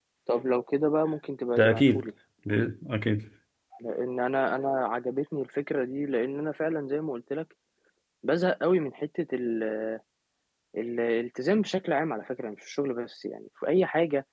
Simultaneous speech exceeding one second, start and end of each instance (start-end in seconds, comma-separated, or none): none